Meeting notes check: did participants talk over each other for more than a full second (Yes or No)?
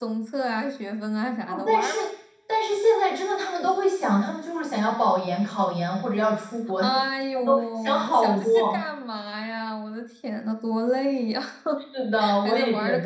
Yes